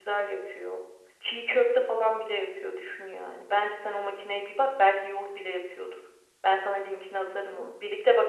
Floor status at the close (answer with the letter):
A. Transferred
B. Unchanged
B